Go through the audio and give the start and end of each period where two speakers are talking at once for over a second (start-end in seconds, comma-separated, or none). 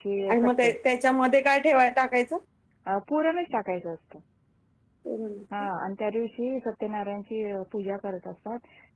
none